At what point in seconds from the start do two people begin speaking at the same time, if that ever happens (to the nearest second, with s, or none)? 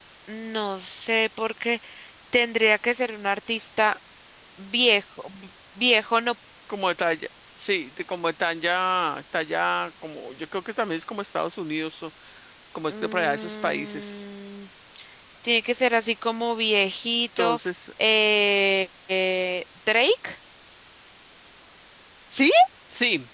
13 s